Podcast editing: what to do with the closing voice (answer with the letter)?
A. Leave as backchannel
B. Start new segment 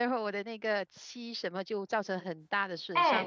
B